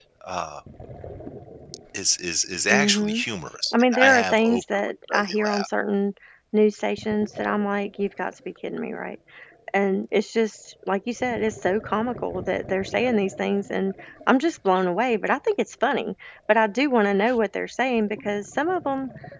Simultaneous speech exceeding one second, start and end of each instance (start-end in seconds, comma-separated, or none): 3.7-5.7